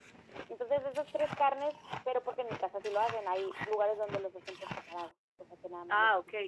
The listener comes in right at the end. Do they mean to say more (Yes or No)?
Yes